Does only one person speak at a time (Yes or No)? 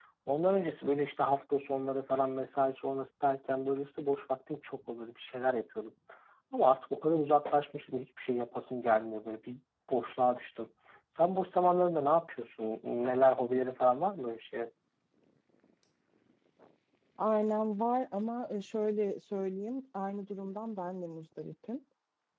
Yes